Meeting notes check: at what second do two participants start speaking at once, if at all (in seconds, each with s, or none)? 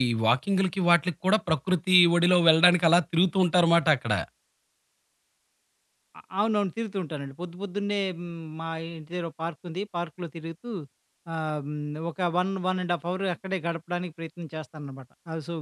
none